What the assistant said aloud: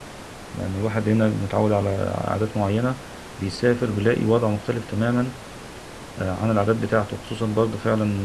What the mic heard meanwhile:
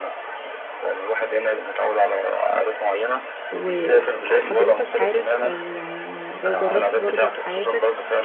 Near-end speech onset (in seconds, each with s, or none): 3.5 s